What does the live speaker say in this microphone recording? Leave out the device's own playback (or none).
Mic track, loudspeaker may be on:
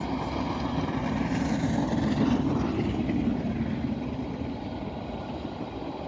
none